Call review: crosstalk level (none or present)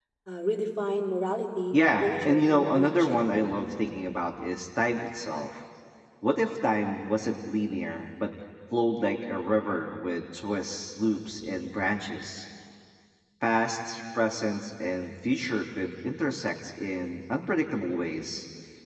present